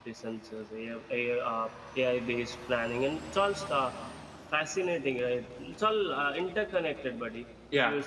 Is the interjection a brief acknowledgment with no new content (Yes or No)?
Yes